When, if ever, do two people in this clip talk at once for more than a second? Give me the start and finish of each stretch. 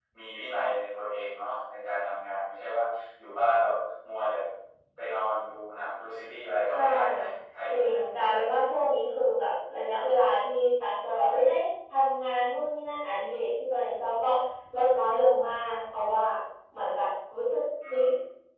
none

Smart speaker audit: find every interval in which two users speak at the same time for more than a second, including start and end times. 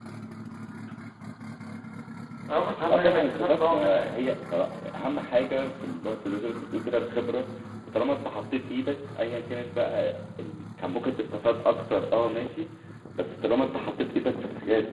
2.9-4.2

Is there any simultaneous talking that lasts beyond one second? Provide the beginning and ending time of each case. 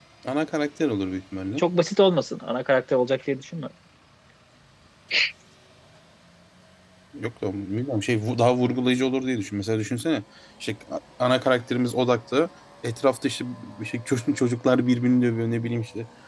none

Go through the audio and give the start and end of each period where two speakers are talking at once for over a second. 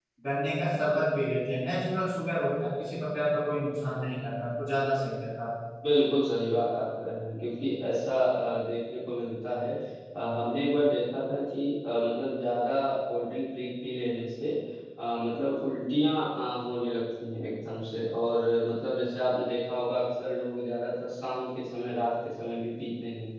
none

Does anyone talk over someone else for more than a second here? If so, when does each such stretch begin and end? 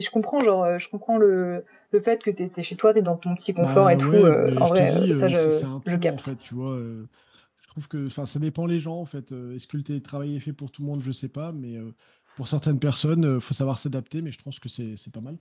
3.6-6.3

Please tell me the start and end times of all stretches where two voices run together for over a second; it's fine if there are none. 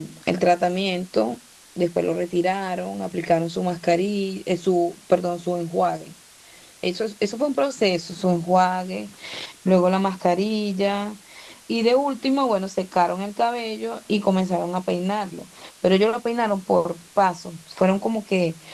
none

